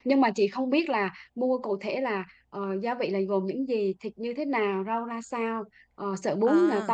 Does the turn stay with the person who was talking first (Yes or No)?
Yes